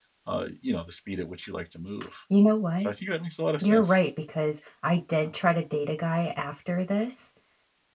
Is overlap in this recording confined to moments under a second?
Yes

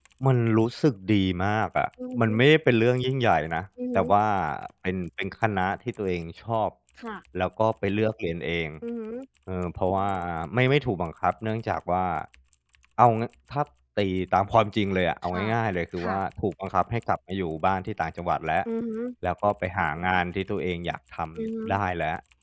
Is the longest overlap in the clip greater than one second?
No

